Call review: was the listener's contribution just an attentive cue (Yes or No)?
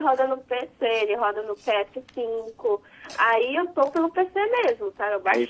No